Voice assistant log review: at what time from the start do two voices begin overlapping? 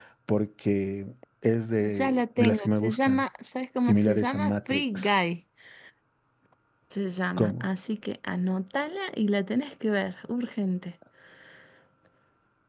1.8 s

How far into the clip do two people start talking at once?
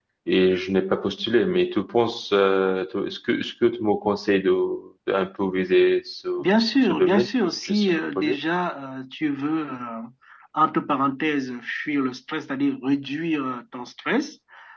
6.8 s

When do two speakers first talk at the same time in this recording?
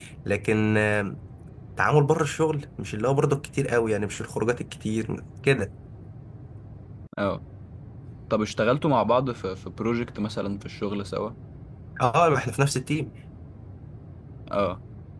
none

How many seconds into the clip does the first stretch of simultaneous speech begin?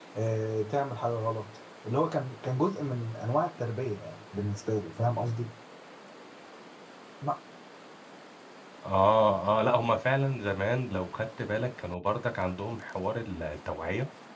none

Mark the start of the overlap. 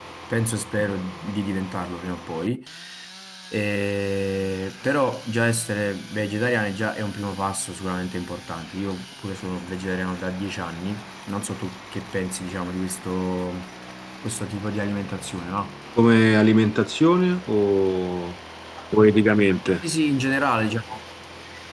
none

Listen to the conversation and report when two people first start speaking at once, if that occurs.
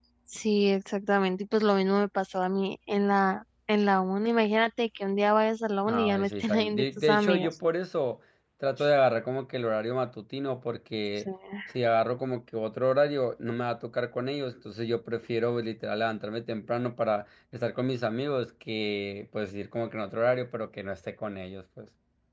5.9 s

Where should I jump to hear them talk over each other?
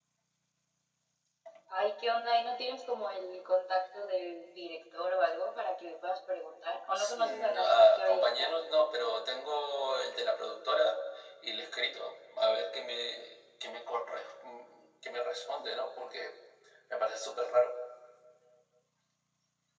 7.0 s

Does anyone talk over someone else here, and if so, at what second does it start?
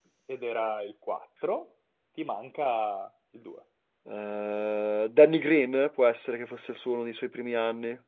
none

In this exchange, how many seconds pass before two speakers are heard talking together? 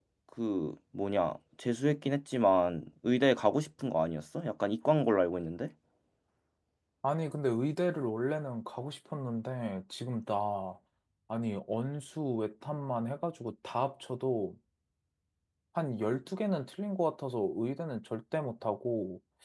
none

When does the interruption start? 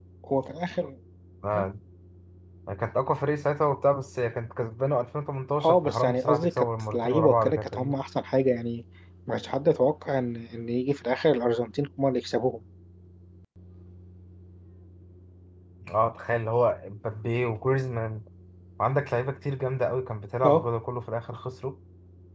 5.6 s

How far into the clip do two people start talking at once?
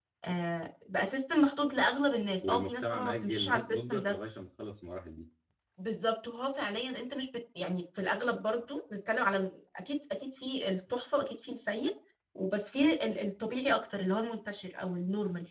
2.4 s

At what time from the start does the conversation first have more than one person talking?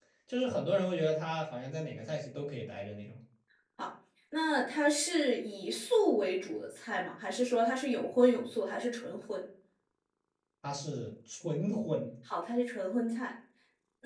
none

